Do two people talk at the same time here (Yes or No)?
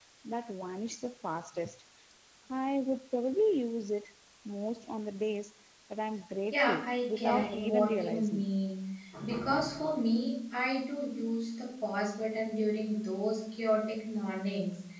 Yes